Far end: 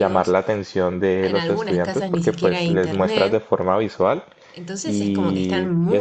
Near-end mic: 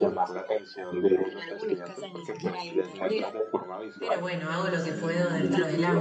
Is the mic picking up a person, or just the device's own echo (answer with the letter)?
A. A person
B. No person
A